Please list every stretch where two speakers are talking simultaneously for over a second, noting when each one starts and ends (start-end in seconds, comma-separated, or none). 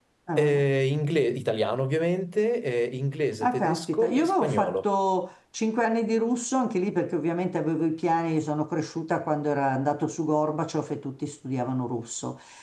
3.5-4.8